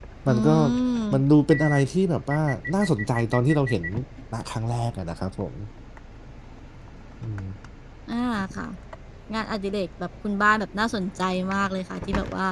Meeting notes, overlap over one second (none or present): none